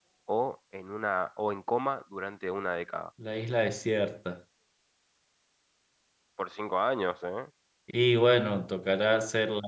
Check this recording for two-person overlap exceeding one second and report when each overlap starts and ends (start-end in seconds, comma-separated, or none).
none